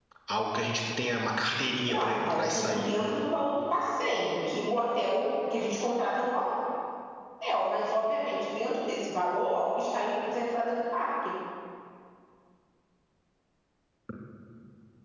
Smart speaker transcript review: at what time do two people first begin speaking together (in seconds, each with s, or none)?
1.9 s